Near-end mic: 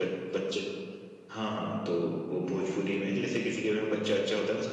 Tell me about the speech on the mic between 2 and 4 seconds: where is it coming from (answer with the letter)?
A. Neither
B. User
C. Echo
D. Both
C